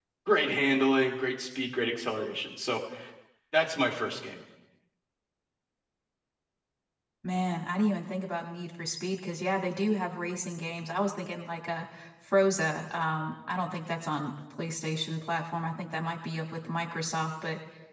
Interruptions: none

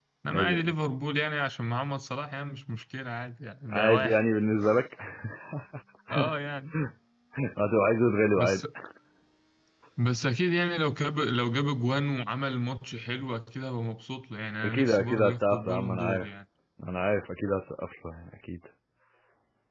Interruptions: present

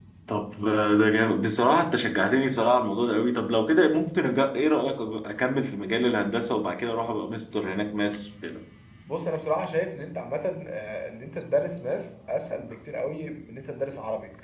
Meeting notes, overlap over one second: none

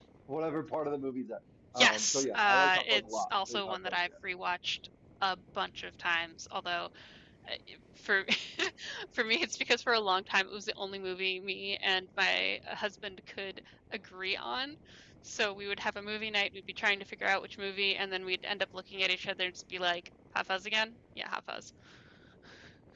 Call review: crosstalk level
present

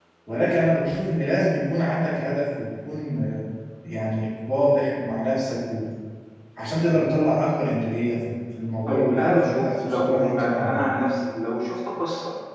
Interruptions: present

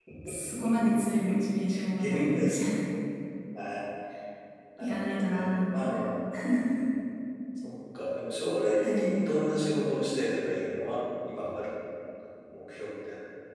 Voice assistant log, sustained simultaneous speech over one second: present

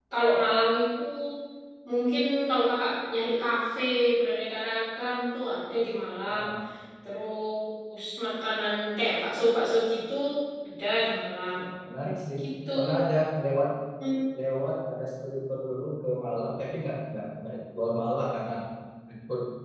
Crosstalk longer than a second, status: none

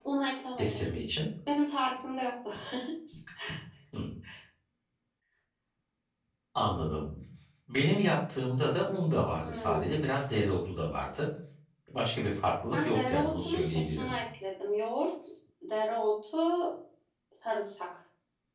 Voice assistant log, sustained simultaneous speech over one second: present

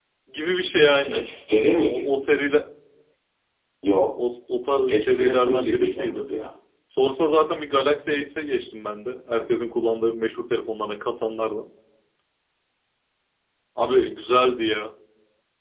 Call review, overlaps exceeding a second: present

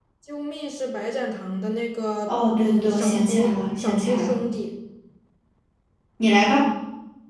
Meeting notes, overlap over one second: present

